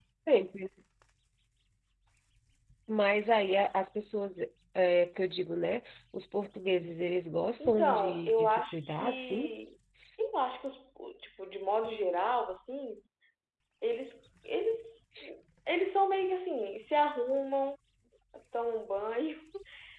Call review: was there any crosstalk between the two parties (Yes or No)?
Yes